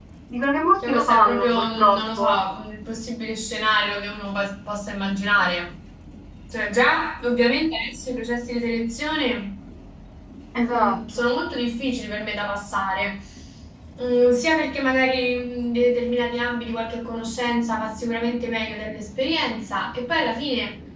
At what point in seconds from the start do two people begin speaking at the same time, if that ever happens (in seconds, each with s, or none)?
0.9 s